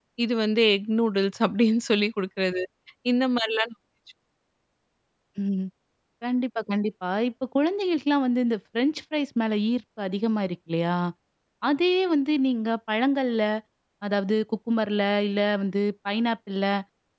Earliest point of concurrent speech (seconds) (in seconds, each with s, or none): none